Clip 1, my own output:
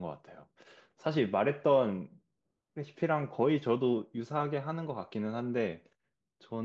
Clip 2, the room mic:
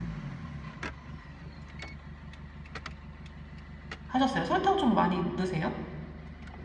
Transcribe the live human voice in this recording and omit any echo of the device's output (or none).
하셨어요? 설탕 좀 많이 넣으세요?